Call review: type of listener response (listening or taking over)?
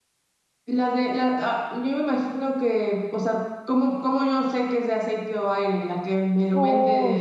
taking over